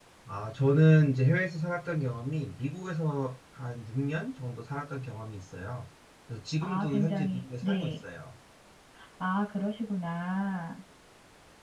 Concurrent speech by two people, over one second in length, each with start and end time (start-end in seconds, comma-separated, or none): 6.6-7.9